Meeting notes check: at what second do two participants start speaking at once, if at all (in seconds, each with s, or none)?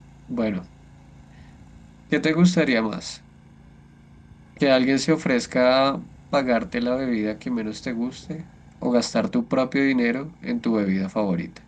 none